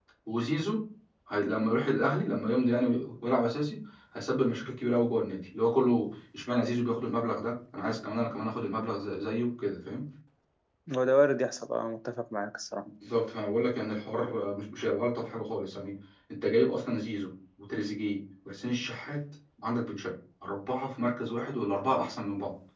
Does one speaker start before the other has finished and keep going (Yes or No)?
No